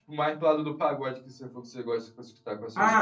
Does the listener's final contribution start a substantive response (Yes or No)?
Yes